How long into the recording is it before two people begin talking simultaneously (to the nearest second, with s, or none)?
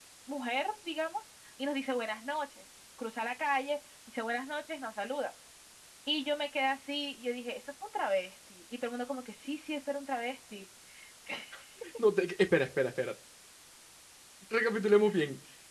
none